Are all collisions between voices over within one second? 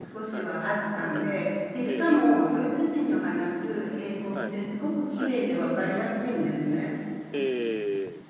Yes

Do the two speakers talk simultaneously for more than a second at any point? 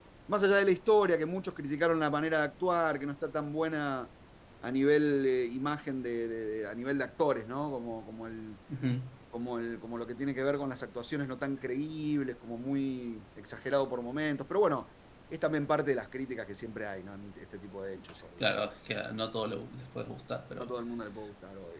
No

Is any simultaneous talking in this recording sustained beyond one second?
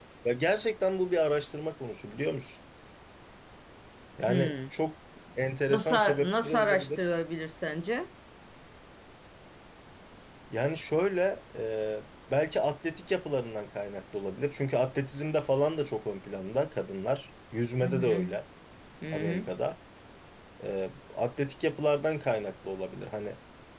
Yes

